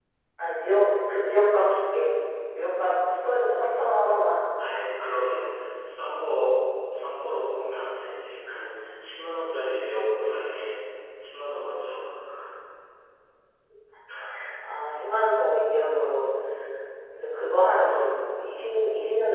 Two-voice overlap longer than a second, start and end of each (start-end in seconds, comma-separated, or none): none